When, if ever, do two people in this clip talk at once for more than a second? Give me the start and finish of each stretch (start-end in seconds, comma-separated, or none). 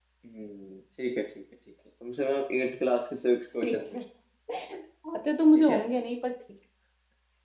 none